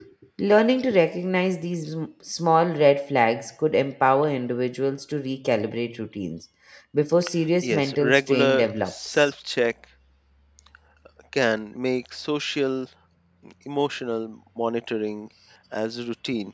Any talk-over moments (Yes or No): Yes